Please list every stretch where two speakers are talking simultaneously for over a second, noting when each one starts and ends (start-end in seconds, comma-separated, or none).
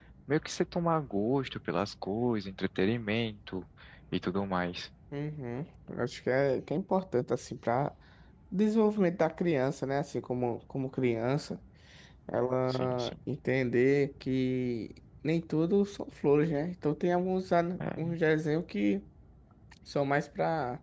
none